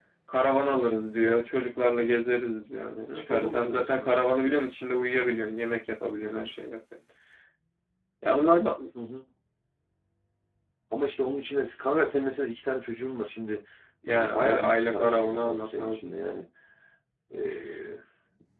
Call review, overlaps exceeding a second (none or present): present